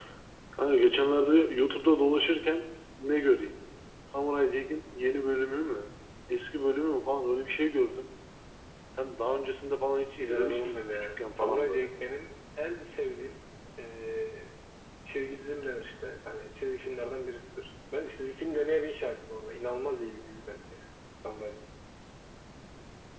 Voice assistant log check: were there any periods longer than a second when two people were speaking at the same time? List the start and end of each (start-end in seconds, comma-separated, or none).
10.2-11.9